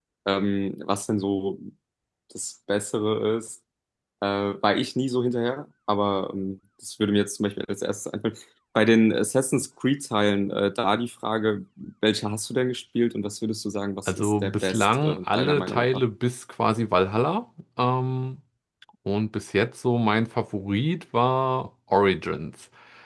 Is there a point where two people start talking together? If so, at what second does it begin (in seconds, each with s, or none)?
14.1 s